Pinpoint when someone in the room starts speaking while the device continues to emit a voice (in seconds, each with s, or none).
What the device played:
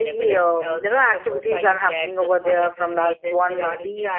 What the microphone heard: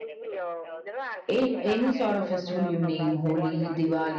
1.3 s